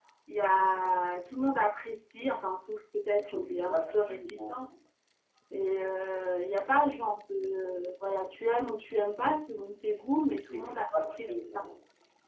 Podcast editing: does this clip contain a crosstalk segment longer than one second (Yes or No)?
Yes